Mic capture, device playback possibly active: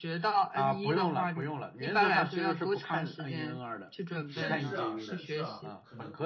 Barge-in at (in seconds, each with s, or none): 4.2 s